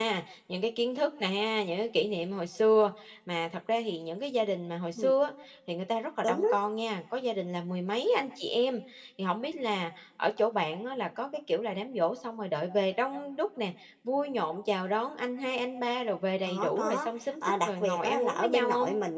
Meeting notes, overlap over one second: present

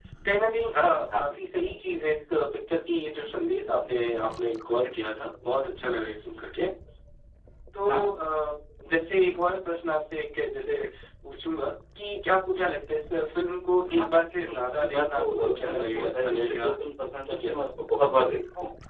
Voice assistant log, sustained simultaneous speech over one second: present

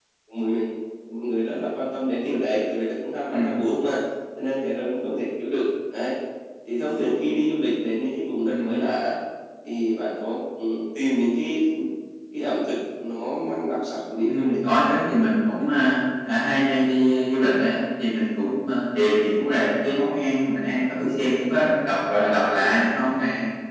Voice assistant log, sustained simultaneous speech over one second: none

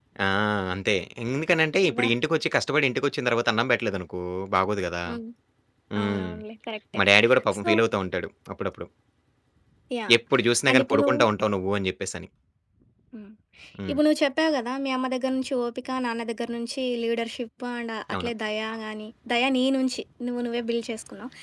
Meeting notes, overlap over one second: none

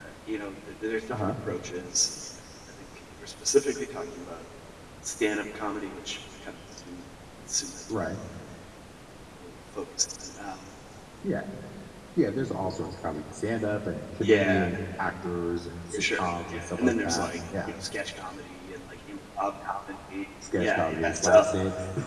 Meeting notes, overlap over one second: present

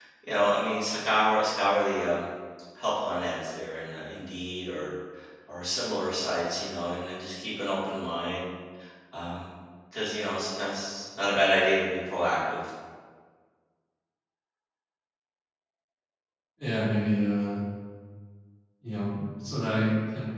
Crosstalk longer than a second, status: none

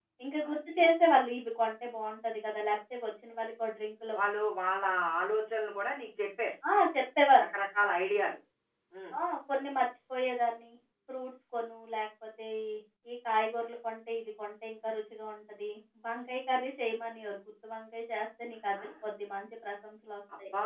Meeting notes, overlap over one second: none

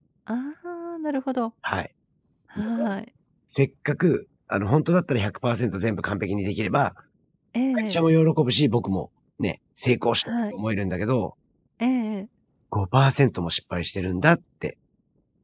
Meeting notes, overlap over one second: none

